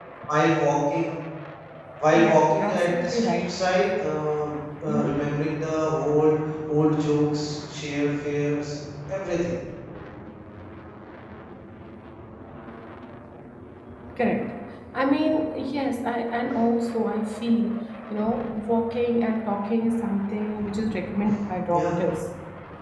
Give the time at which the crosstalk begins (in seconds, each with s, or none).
2.1 s